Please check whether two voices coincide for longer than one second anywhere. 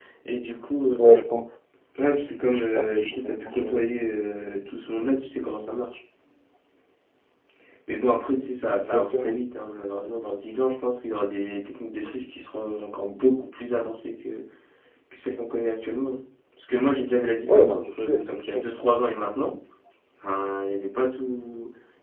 Yes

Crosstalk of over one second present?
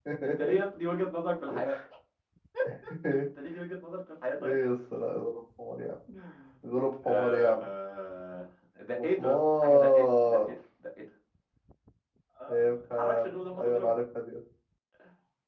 Yes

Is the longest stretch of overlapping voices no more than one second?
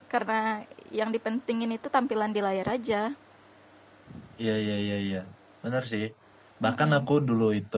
Yes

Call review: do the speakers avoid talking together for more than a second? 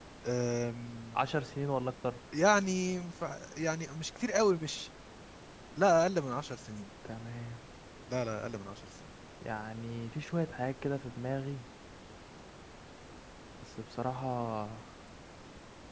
Yes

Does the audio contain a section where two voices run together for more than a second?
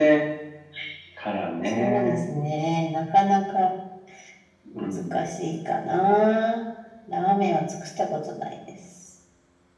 No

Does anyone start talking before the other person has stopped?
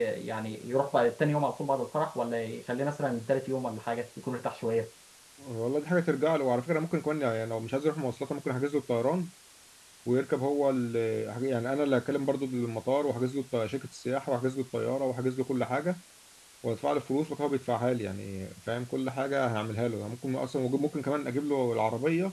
No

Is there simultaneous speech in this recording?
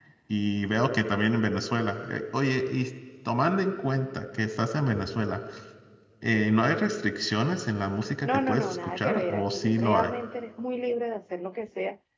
Yes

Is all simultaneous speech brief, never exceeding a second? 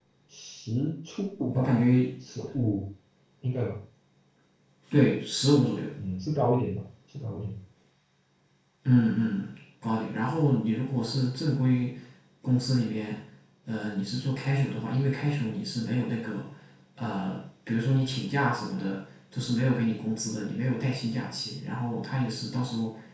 Yes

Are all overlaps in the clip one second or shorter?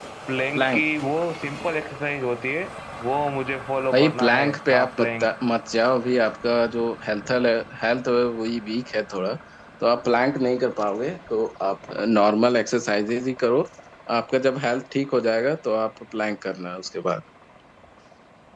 No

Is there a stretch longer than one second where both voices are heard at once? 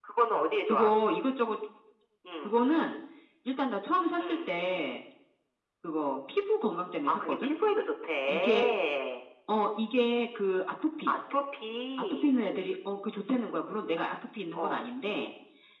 No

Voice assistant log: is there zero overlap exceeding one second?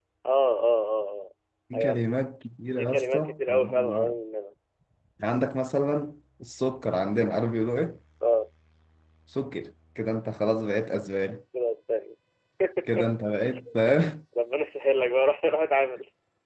No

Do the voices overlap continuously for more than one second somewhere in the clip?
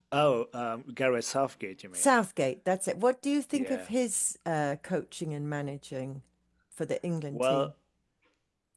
No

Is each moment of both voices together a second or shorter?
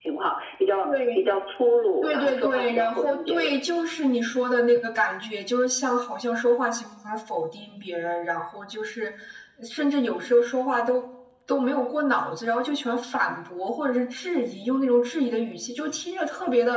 No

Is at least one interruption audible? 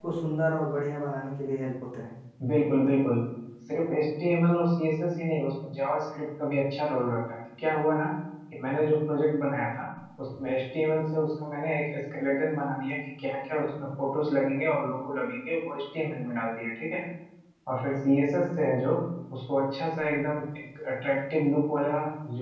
No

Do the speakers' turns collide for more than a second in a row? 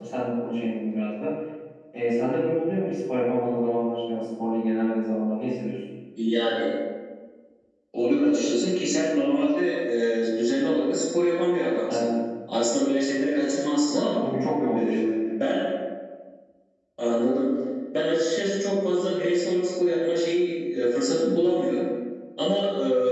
No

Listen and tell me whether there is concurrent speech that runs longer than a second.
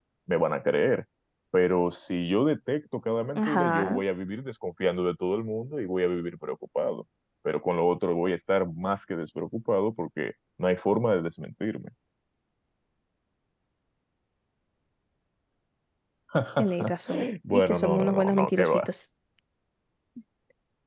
Yes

